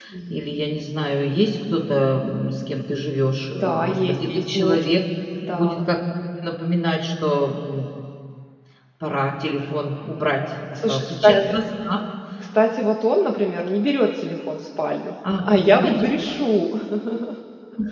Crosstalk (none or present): present